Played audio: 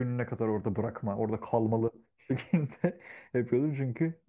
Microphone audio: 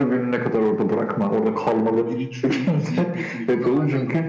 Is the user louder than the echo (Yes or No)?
No